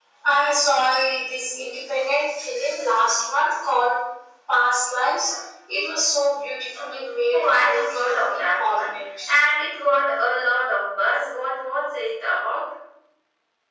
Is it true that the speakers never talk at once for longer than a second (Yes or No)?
No